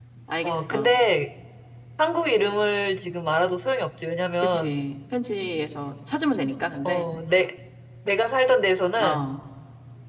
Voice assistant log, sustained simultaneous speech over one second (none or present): none